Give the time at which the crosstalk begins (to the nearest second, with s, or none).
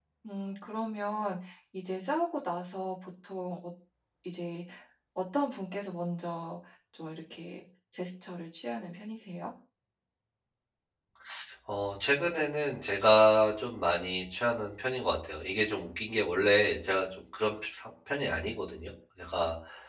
none